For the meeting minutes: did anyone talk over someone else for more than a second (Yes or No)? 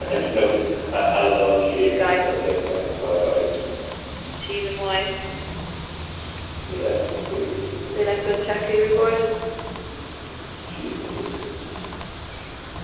No